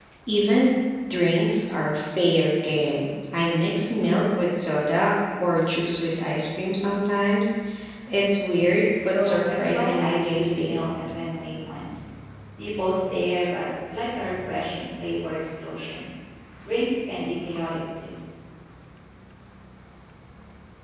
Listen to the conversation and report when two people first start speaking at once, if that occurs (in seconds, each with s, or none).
9.1 s